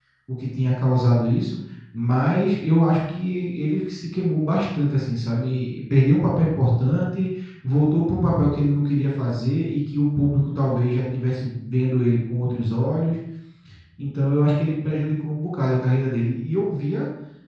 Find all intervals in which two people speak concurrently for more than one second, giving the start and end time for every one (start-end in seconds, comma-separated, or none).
none